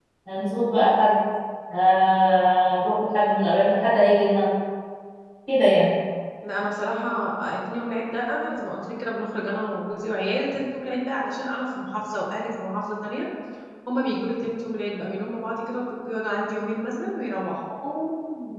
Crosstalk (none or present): none